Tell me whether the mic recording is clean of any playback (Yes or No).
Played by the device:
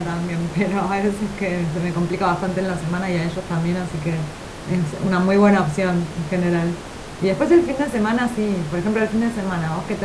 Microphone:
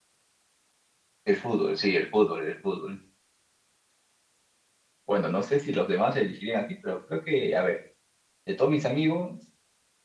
Yes